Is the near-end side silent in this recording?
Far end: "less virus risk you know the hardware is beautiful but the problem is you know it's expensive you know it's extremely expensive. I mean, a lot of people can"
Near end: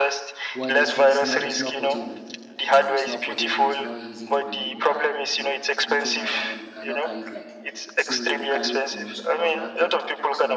No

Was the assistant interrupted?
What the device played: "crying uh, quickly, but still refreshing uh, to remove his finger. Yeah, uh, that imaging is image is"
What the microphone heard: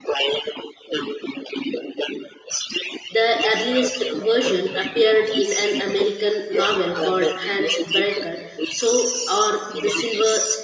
Yes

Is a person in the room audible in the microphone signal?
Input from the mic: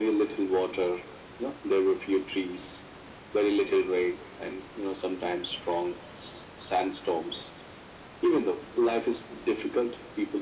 No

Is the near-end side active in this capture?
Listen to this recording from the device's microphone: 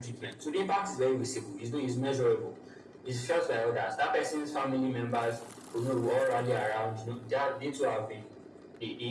No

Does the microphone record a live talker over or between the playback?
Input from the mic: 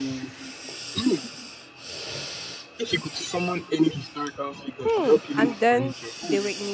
Yes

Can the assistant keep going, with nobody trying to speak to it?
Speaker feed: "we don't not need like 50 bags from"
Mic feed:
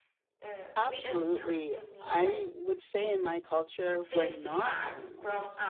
No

